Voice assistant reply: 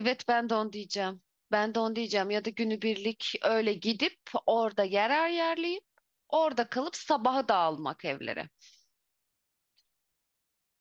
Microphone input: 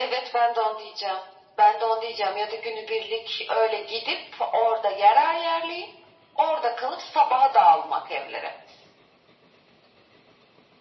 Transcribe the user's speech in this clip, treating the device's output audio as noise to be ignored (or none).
none